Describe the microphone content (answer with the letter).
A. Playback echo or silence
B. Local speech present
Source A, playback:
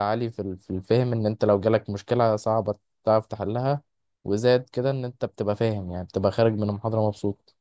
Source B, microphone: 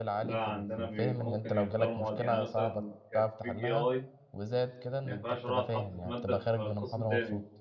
B